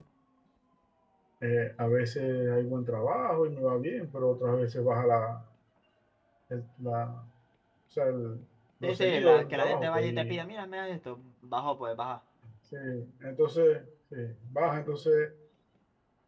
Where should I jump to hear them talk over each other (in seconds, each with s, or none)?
8.8 s